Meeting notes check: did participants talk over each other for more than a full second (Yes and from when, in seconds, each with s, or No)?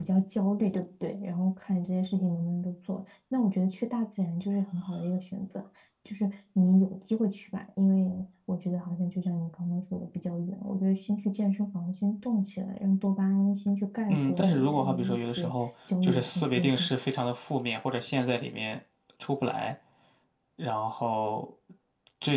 Yes, from 14.1 s